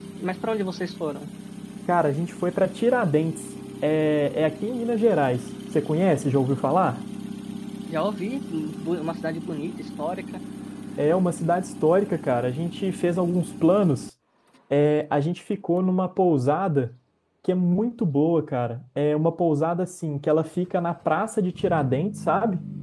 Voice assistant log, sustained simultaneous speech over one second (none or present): none